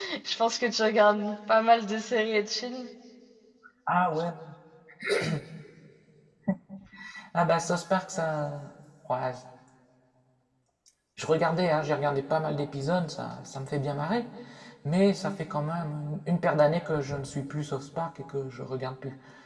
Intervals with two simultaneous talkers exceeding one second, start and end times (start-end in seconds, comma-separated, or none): none